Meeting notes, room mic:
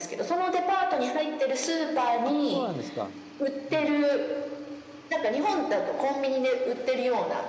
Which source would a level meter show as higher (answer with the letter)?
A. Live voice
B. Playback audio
B